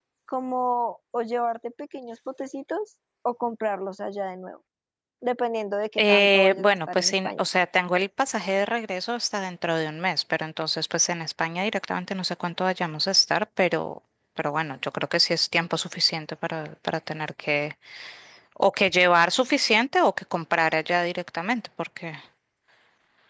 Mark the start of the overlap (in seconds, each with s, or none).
6.0 s